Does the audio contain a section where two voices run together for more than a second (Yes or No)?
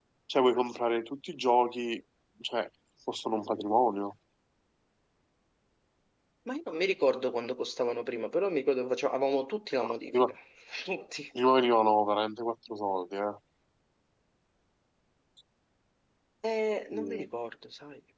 No